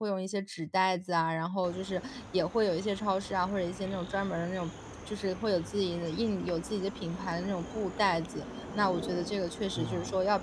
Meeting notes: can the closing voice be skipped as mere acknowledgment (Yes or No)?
Yes